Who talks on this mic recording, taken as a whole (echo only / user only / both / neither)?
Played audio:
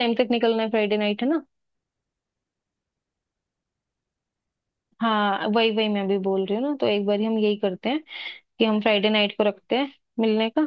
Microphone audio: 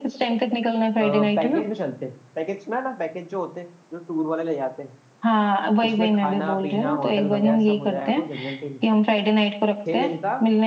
both